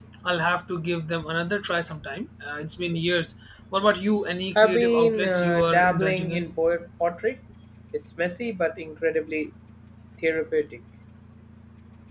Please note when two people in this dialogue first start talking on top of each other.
5 s

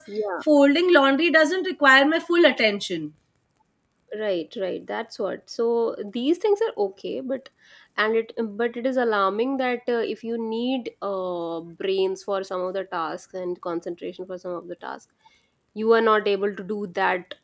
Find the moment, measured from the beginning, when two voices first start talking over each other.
none

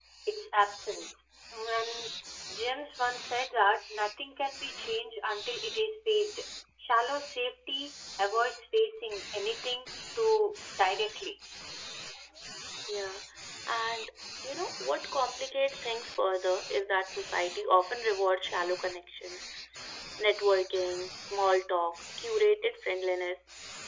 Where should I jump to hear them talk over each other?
none

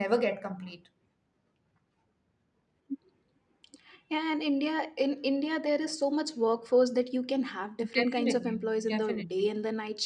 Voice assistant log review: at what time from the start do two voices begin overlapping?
8 s

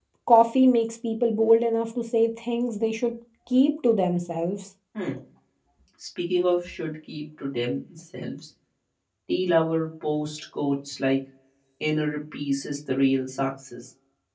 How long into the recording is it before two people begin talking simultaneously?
none

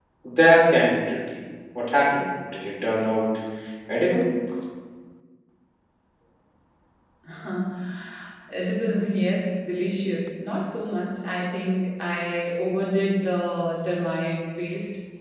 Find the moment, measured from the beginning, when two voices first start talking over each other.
none

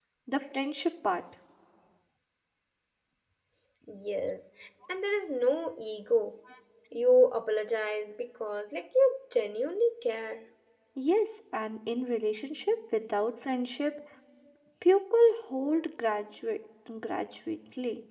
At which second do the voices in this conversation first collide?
none

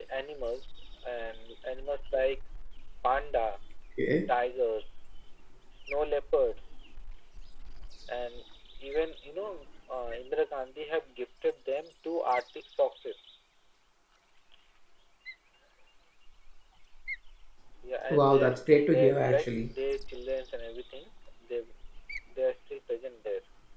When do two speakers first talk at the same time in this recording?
18 s

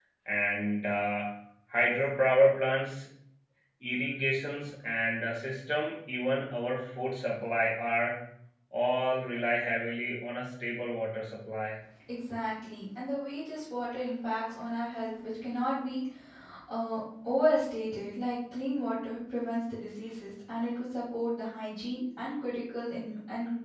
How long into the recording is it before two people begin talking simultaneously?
none

